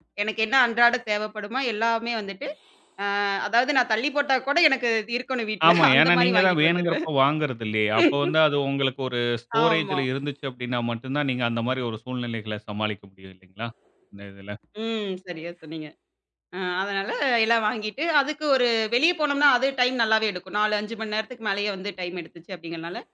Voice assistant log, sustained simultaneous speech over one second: present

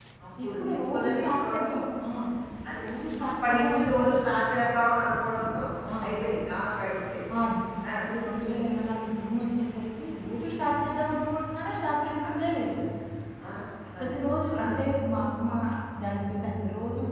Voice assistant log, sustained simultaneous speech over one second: present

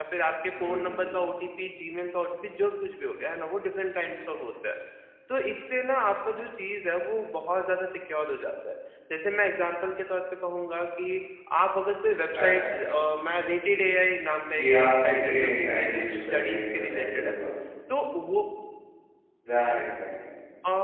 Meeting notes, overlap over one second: present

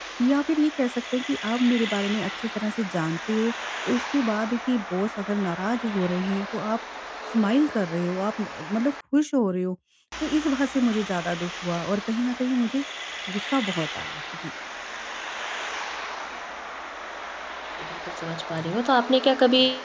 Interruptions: none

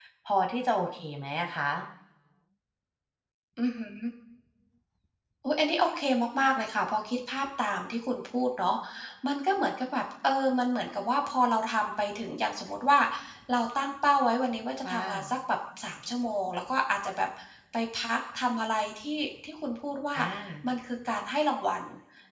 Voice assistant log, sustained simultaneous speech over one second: none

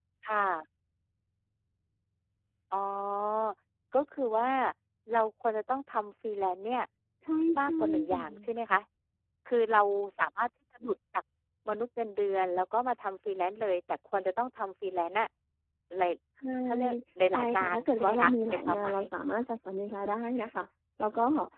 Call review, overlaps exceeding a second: present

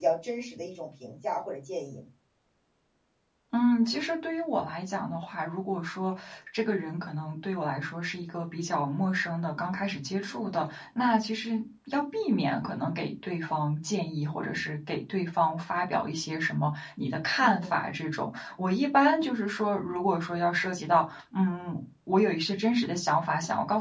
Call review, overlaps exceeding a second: none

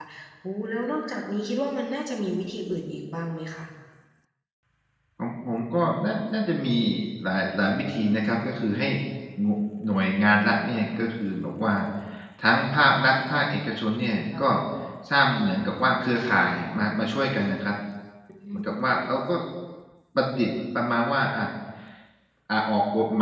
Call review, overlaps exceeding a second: none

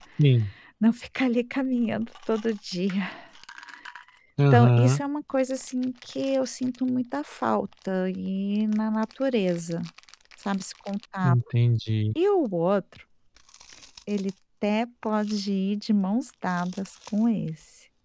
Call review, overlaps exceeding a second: none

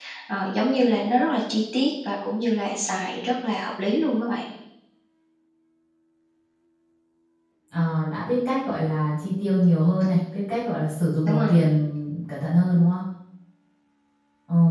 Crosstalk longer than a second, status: none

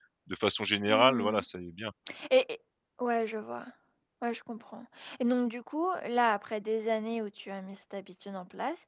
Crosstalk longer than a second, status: none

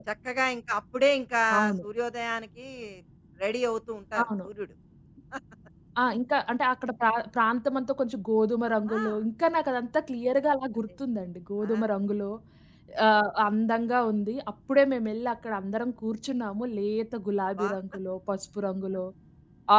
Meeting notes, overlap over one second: none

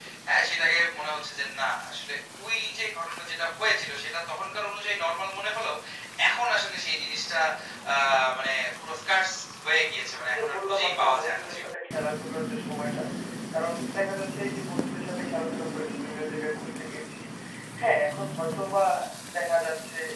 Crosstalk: present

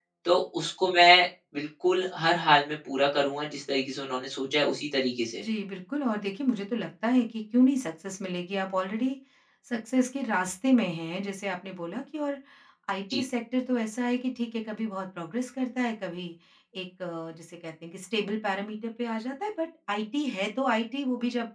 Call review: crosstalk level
none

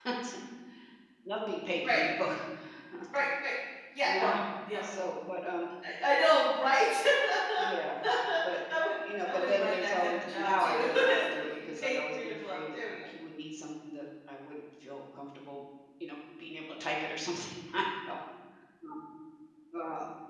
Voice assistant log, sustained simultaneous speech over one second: present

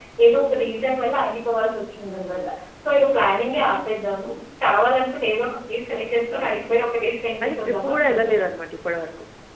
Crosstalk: present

